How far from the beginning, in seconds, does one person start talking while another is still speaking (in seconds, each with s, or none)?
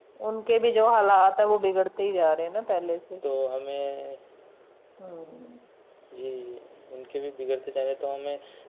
none